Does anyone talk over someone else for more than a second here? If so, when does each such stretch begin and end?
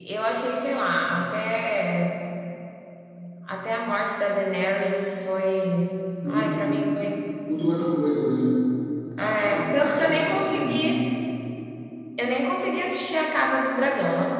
9.2-11.0

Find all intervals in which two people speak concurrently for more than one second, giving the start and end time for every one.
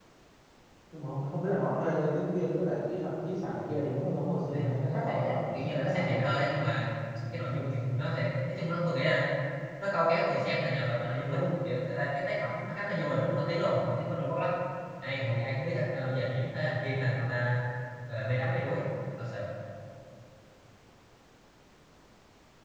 4.5-6.5

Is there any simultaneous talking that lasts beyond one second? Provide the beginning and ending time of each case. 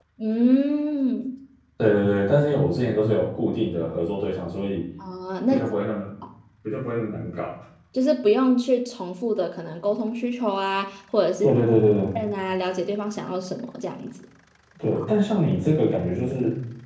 none

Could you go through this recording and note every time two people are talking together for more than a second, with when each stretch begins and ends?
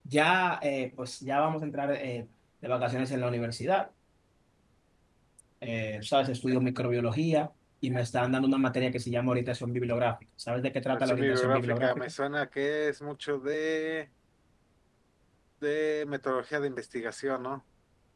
10.9-12.1

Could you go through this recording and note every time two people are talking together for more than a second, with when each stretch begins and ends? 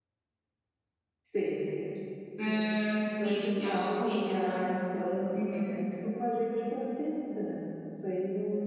3.2-4.6

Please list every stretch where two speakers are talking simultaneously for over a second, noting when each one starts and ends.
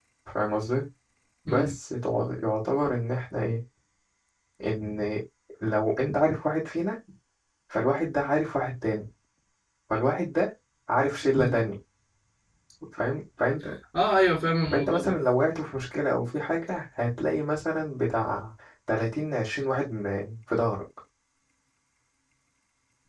none

